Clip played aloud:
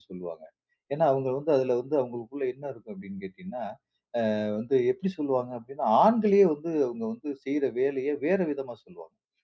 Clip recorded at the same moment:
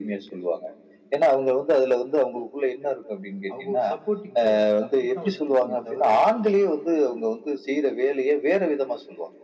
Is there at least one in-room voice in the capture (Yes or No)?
Yes